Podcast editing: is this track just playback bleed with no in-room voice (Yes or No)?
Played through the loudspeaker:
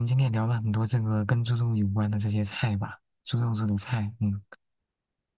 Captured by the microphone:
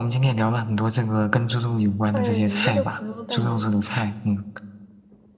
No